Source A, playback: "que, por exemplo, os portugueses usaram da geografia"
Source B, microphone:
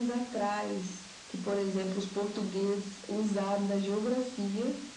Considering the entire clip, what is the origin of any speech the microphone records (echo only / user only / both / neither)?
echo only